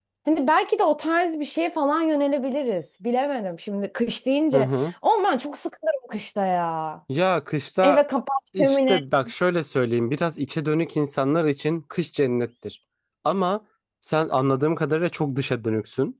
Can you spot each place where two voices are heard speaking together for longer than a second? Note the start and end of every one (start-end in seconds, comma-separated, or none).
none